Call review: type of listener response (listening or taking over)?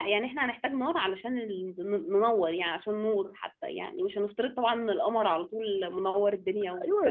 taking over